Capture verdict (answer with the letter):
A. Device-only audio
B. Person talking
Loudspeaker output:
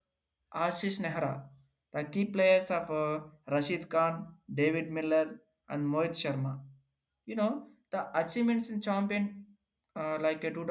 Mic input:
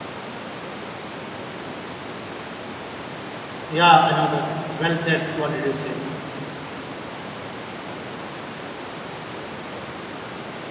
B